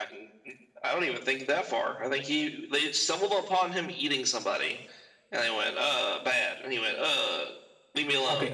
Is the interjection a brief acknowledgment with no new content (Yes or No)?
No